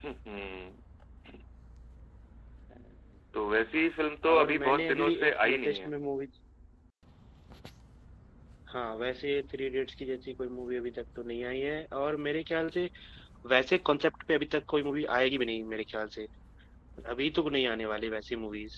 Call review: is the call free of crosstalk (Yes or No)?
No